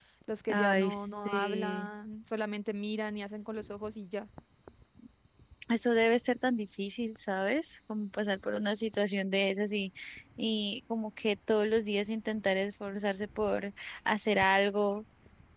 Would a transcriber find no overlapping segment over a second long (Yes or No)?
No